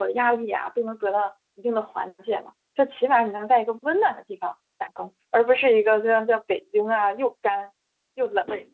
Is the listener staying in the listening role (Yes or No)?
No